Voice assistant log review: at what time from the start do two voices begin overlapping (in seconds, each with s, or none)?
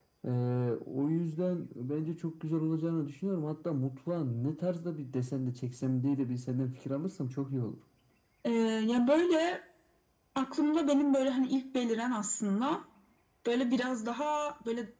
none